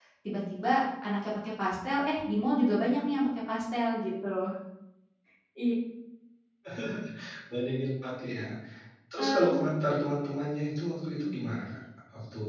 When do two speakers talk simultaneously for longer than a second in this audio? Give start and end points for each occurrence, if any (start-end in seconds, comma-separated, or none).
none